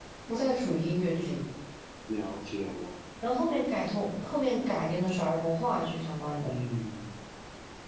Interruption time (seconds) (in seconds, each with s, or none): none